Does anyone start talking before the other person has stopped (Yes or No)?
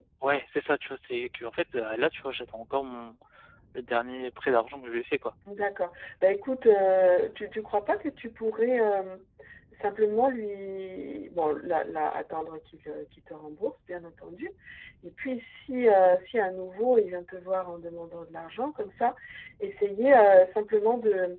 No